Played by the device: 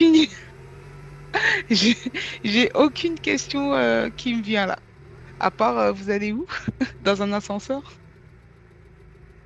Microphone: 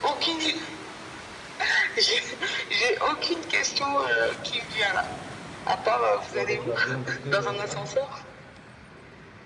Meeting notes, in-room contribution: present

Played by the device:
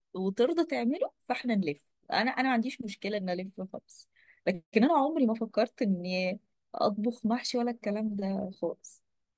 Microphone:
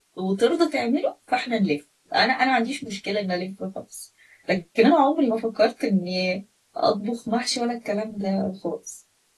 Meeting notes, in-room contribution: none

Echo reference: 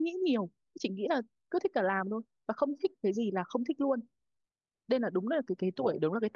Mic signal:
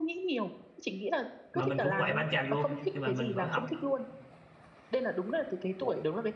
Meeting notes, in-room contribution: present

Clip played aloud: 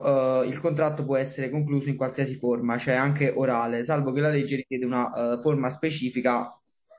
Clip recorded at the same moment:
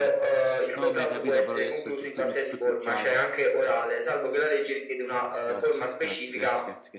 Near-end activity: present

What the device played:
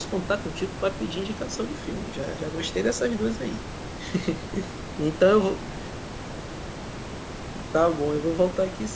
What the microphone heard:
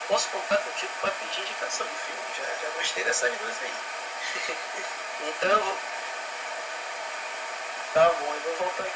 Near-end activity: none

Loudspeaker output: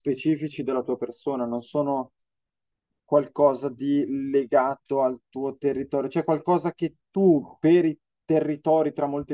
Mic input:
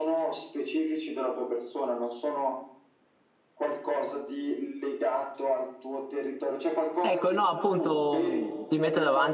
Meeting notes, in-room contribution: present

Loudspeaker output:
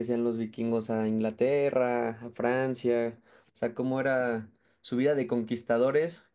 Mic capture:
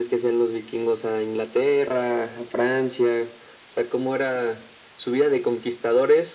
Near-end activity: none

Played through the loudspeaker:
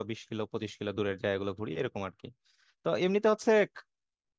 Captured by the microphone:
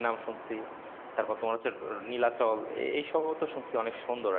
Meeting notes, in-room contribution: present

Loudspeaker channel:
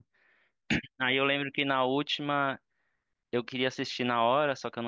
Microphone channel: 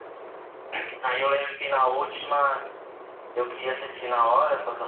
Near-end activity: none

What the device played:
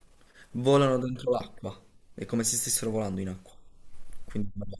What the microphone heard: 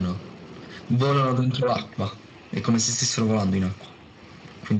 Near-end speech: none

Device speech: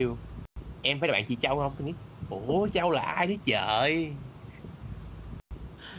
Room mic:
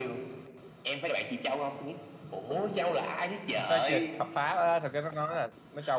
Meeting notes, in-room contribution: present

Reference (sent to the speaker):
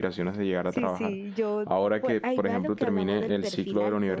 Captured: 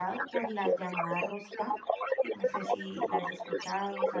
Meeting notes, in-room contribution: present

